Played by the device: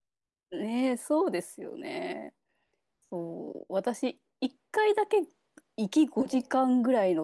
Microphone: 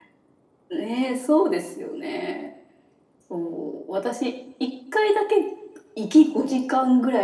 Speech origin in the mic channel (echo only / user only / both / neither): echo only